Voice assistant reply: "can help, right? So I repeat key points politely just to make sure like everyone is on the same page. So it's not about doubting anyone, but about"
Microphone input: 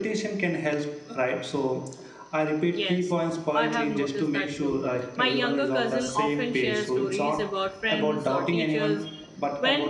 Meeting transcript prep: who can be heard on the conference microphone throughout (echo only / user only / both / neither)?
both